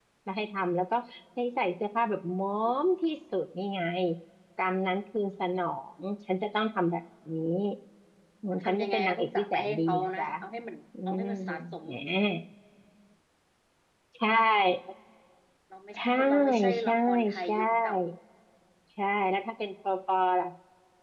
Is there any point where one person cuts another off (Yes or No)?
Yes